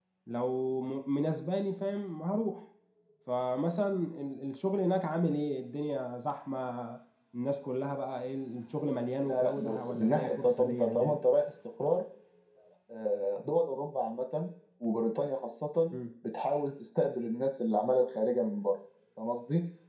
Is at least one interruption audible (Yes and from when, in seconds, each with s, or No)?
Yes, from 9.2 s